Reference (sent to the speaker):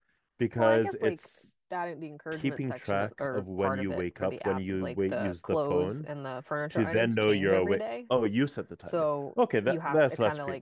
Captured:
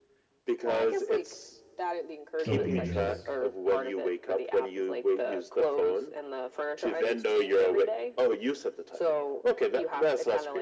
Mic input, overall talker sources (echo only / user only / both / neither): both